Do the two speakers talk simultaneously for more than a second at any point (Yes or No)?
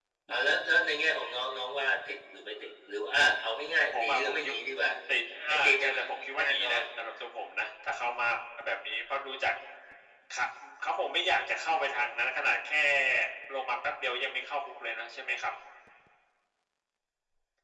Yes